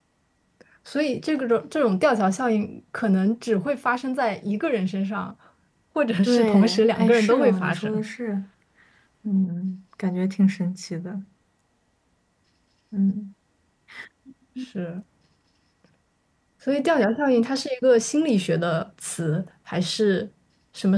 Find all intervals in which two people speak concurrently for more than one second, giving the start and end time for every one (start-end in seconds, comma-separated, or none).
6.2-8.0